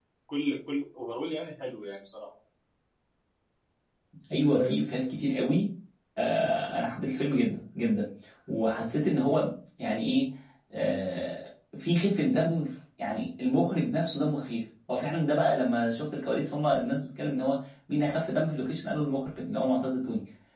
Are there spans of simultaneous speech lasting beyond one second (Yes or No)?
No